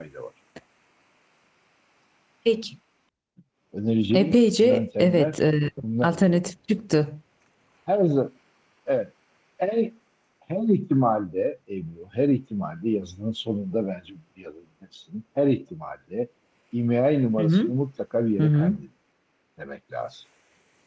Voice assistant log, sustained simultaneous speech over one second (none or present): present